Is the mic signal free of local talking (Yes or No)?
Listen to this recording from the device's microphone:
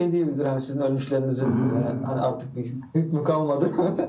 No